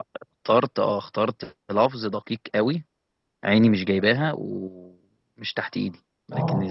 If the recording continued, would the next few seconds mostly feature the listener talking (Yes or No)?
No